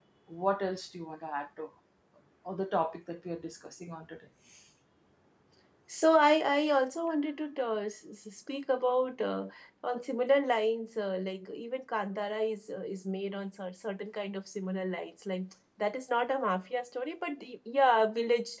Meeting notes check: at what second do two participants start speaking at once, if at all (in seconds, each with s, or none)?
none